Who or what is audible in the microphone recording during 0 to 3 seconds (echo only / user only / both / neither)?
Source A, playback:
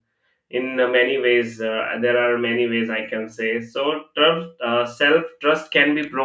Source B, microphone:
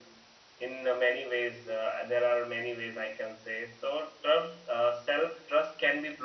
echo only